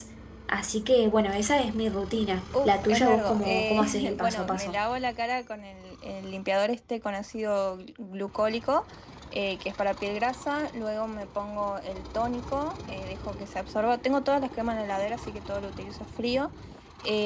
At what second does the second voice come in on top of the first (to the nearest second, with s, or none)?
3 s